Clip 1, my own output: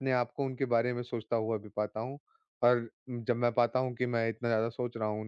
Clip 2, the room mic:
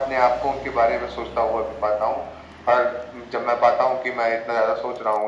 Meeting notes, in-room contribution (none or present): none